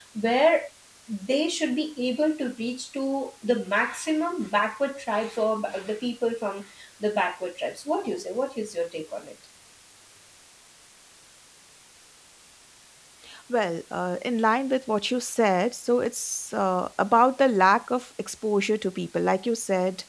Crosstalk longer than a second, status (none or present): none